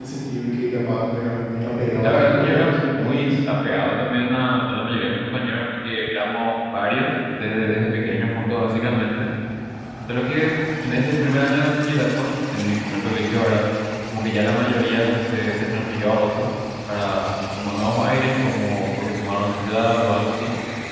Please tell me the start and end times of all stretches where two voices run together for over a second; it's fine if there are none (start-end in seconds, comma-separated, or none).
2.0-3.3